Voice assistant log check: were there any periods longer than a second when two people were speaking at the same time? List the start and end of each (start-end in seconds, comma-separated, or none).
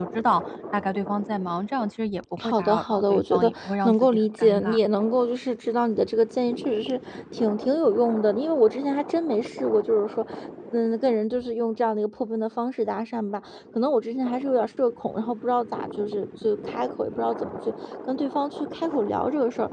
2.4-4.8